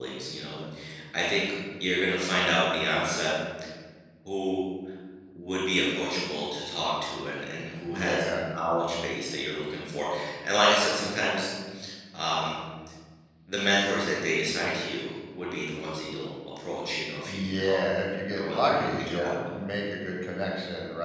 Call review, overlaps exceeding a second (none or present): present